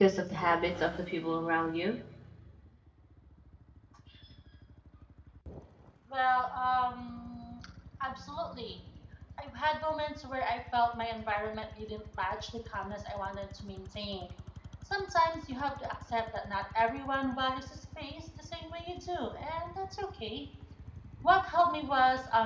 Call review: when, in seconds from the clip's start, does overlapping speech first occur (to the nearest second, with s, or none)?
none